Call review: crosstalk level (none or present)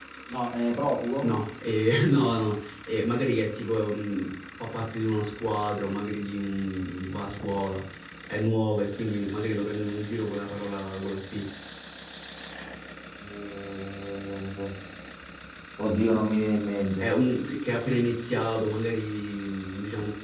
none